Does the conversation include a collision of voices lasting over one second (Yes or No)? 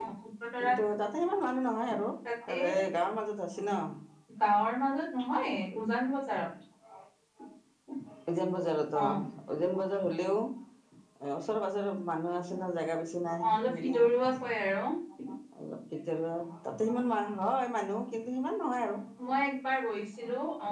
No